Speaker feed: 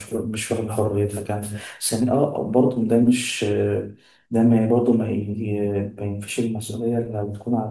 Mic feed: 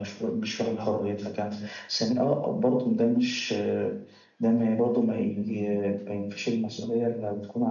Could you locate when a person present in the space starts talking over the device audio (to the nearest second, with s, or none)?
none